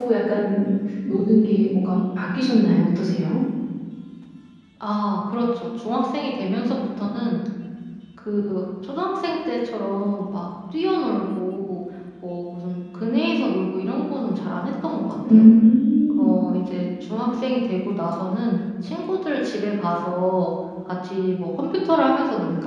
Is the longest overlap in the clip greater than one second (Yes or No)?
No